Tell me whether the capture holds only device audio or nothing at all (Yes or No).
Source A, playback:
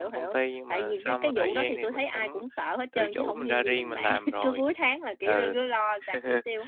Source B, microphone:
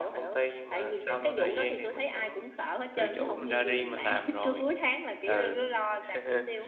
Yes